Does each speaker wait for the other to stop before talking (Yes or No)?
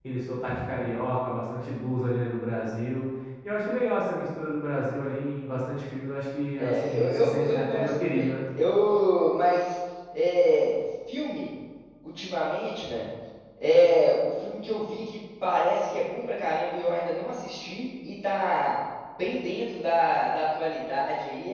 No